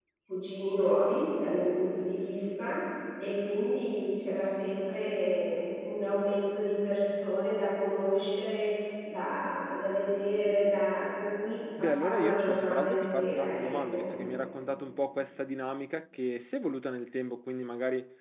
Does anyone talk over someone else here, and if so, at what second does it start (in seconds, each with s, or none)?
11.8 s